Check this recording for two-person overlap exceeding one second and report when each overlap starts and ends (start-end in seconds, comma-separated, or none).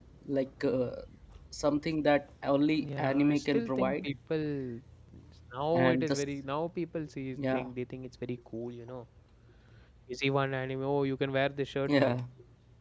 2.8-4.1